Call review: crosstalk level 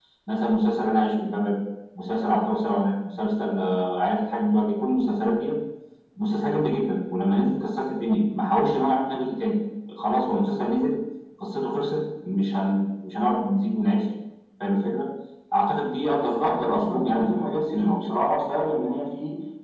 present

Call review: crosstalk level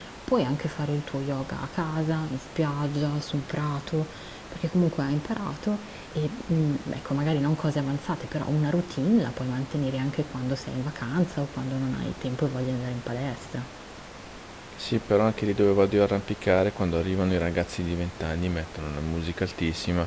none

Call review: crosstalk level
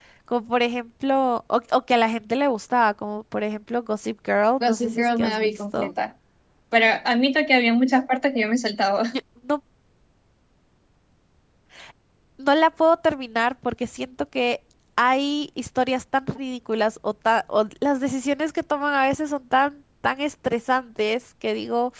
present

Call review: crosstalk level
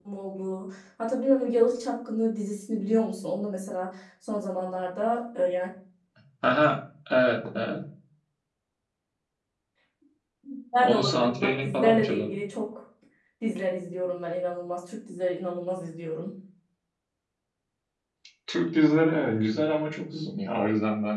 present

